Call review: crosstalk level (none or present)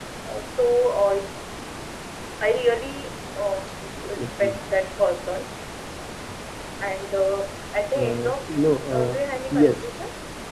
present